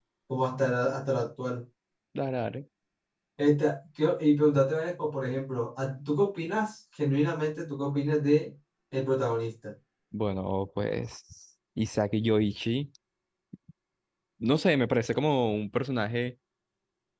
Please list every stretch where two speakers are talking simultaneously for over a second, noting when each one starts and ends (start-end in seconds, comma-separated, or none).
none